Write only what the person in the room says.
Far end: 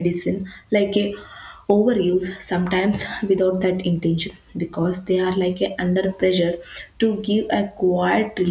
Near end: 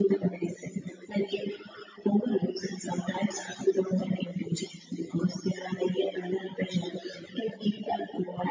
none

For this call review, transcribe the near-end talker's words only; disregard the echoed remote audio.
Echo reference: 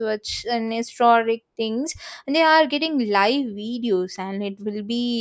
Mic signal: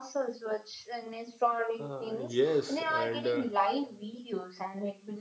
Uh, yes, and uh,

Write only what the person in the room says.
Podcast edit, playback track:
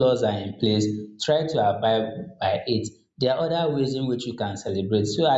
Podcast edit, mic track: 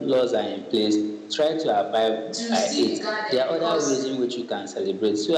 to still be guarded because

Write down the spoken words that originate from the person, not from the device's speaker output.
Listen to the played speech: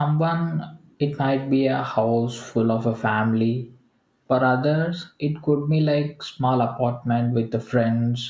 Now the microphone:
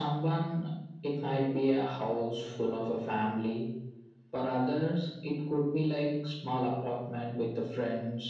none

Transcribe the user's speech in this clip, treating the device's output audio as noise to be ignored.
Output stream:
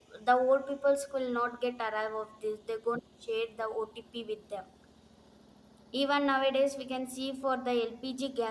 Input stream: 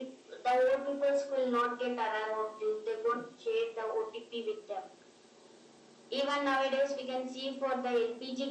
none

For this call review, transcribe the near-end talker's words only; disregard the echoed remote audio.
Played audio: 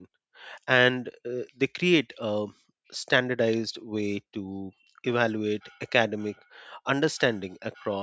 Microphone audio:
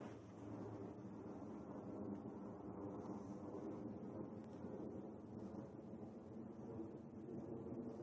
none

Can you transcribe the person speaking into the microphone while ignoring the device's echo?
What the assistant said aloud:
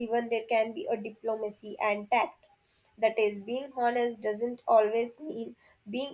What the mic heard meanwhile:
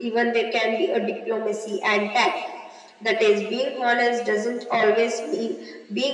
none

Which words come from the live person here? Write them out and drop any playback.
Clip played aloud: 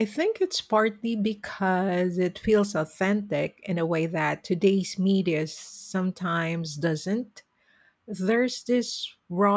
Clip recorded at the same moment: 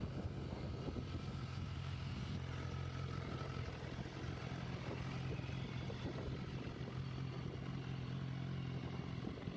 none

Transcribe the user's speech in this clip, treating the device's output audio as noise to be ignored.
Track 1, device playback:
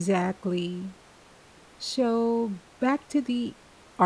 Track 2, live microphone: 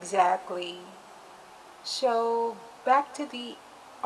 none

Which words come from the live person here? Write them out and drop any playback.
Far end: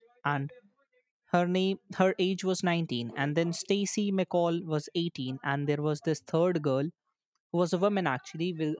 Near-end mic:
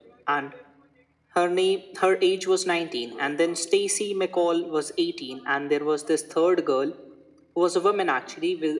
none

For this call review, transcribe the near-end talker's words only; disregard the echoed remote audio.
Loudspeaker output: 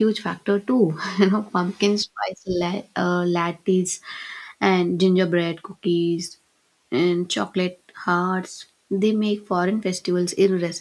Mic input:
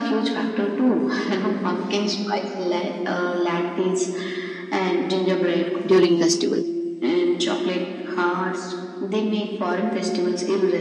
during festivals.

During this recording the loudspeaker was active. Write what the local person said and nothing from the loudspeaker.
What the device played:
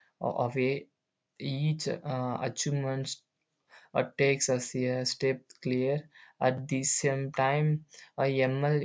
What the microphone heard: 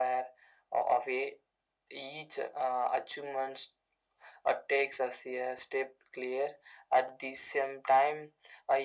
none

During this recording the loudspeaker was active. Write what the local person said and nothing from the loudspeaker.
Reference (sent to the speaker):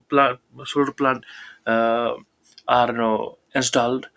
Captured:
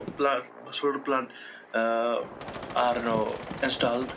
none

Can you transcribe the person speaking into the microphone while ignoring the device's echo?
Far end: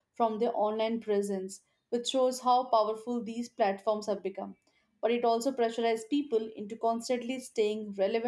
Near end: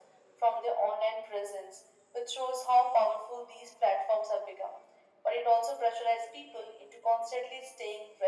none

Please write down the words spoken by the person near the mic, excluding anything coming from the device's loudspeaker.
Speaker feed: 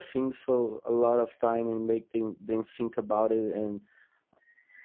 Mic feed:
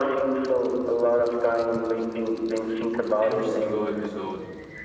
every single episode

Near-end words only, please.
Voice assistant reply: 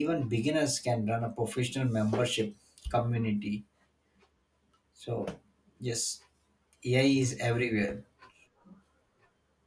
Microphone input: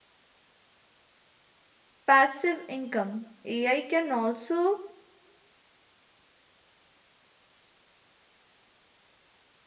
passive income. AI can also

